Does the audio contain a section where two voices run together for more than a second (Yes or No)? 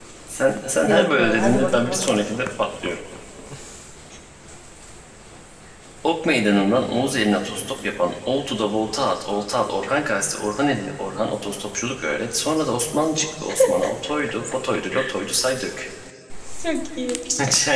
Yes